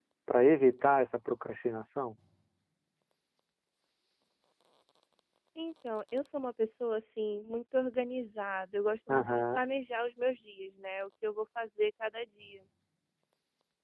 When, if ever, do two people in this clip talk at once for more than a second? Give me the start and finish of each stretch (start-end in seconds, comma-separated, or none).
none